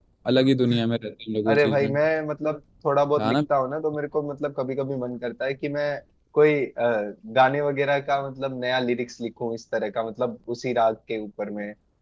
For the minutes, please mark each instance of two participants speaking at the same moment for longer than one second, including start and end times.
none

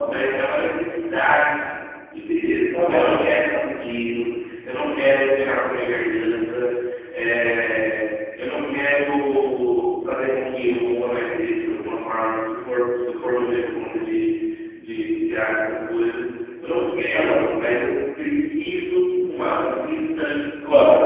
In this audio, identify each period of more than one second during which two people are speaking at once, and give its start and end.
none

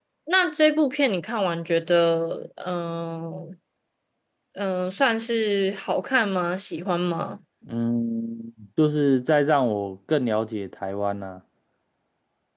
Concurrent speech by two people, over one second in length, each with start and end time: none

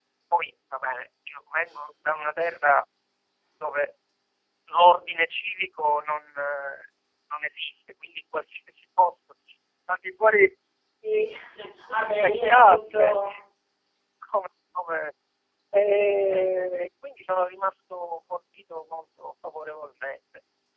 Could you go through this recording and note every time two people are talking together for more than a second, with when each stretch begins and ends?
11.9-13.2

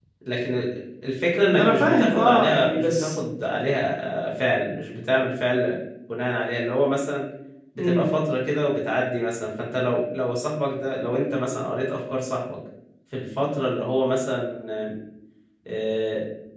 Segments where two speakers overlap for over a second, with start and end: 1.5-3.1

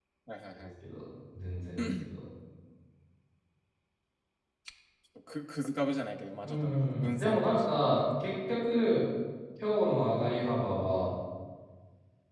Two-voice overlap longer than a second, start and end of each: 6.4-7.7

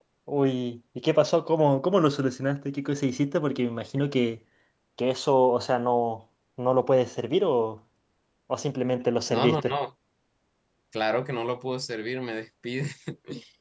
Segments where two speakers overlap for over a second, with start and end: none

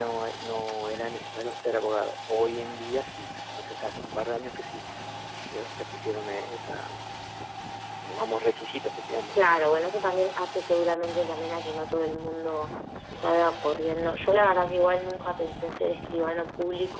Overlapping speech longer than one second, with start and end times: none

